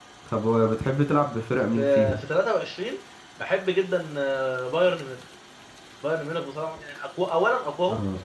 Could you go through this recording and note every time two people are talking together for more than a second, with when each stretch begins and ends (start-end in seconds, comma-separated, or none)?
none